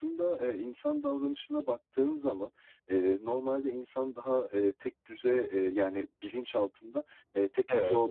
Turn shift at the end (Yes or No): No